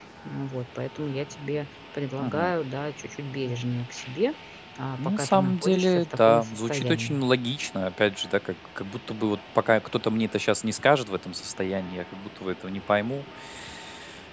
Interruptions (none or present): present